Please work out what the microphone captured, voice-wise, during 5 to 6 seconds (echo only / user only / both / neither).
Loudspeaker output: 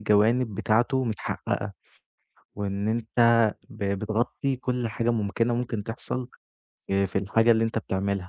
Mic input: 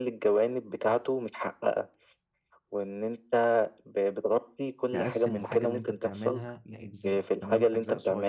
both